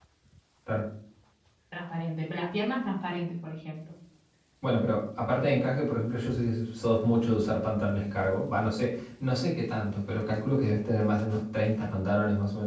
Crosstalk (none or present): none